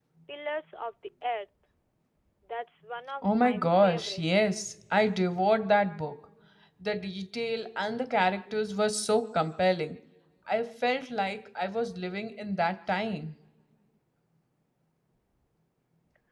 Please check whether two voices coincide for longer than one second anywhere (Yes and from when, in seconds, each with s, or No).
Yes, from 3.2 s